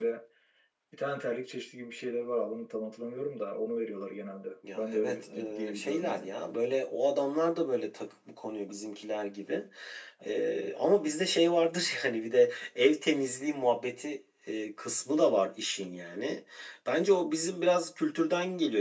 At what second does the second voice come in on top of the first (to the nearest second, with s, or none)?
5 s